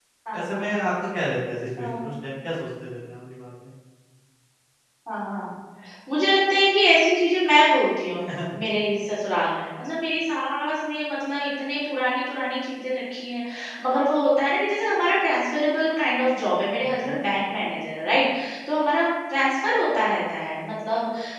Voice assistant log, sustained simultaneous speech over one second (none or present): none